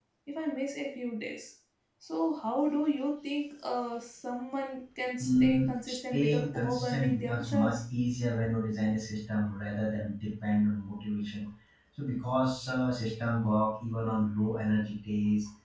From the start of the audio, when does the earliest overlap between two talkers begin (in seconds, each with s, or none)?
5.2 s